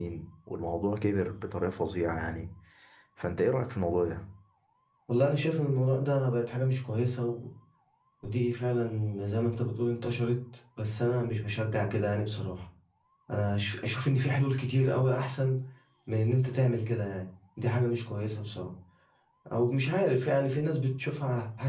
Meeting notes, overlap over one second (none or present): none